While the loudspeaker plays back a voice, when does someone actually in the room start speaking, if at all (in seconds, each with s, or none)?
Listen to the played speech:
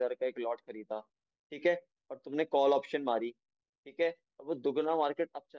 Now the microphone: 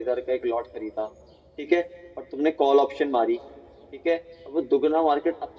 none